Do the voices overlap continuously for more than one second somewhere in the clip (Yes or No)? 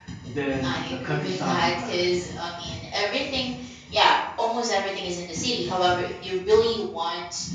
Yes